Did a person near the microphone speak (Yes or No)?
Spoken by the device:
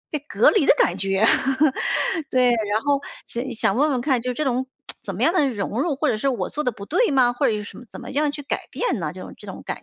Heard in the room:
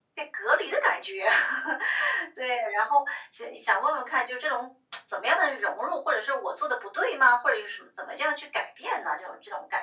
No